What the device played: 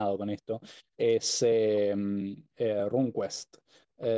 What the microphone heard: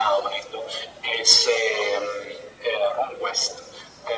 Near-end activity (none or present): none